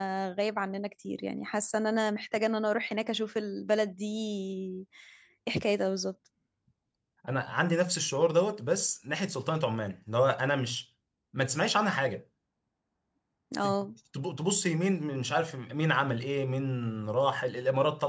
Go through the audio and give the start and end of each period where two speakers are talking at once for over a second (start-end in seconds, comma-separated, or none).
none